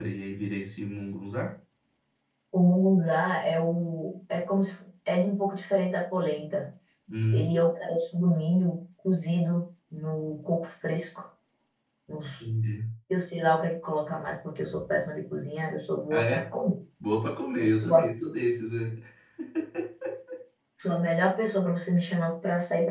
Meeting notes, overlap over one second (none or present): none